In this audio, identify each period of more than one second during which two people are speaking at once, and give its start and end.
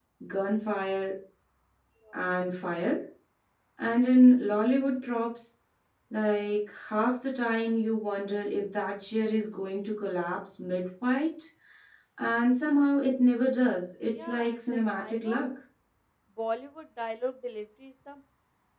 14.2-15.4

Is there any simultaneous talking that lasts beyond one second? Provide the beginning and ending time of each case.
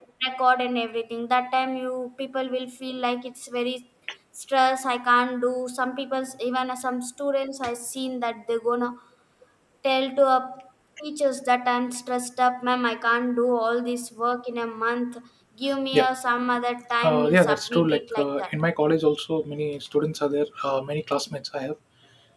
17.1-18.5

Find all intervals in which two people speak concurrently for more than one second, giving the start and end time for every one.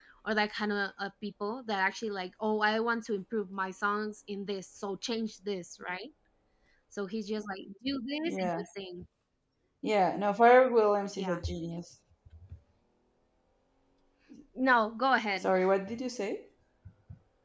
none

